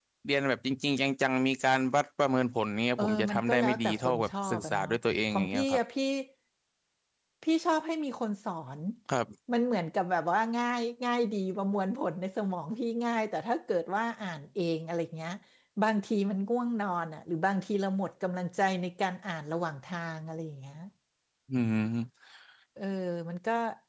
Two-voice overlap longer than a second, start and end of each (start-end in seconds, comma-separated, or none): 3.0-4.9